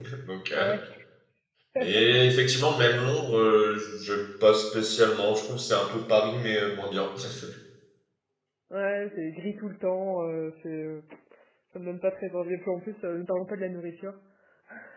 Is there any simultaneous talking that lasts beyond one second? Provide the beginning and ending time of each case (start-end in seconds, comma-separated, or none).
none